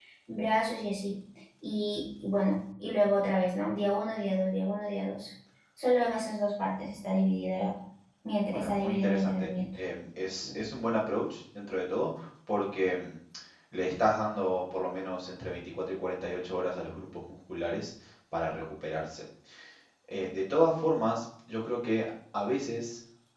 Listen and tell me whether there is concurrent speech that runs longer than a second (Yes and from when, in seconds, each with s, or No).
Yes, from 8.5 s